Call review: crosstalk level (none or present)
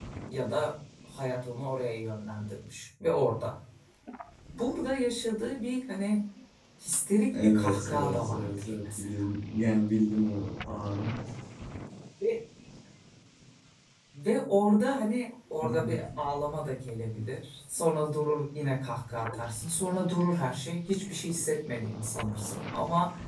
present